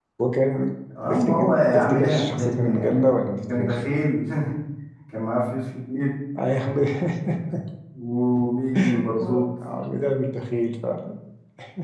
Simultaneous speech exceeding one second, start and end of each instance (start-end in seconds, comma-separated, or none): 1.1-3.8